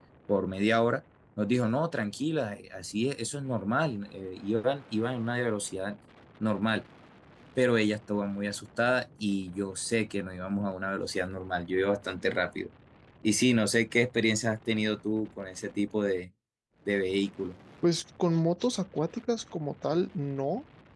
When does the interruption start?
none

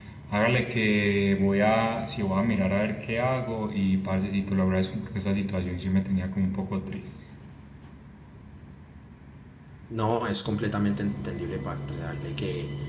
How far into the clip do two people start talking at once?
none

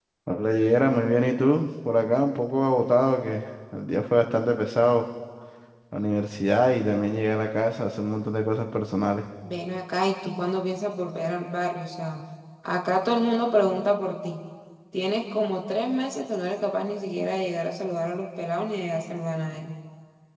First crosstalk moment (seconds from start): none

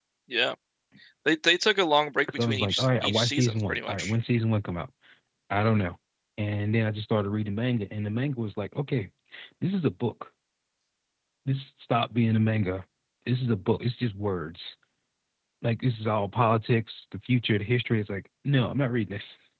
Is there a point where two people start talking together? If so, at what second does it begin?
2 s

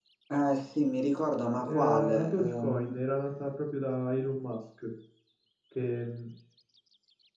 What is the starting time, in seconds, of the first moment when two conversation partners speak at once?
2 s

